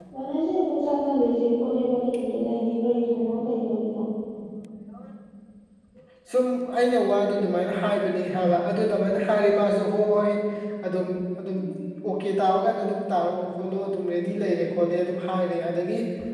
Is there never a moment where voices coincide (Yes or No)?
Yes